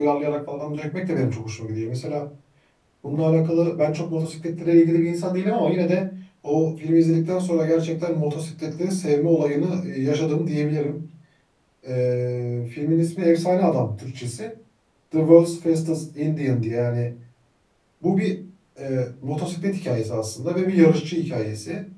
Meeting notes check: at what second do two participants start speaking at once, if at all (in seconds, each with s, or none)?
none